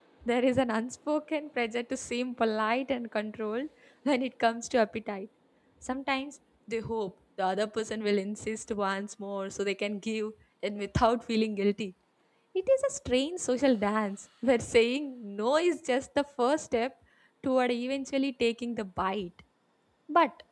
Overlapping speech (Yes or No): No